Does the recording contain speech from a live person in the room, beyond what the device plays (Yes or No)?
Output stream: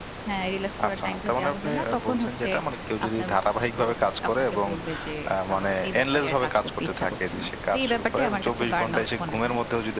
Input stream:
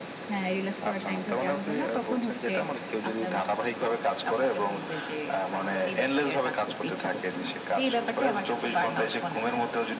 No